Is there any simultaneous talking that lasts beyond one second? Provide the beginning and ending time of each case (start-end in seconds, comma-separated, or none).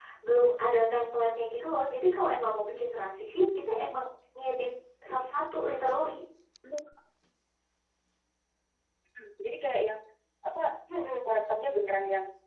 none